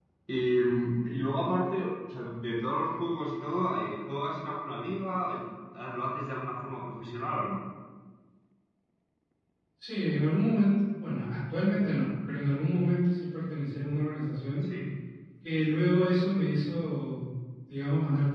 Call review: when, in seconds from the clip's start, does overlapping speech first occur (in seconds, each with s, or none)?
none